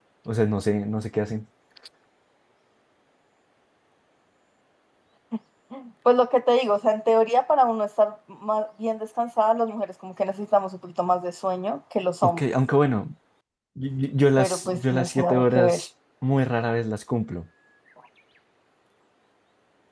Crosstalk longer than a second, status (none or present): present